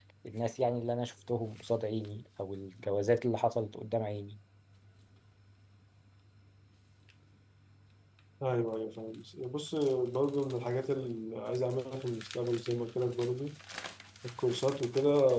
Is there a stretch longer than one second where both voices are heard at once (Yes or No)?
No